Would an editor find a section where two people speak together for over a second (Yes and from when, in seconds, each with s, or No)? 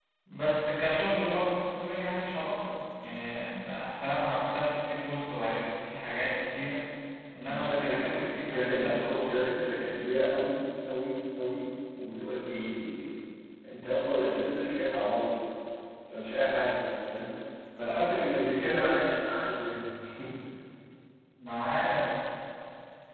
Yes, from 7.5 s